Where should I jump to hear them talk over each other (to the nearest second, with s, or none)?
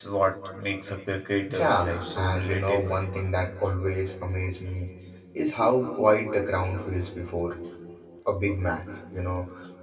1 s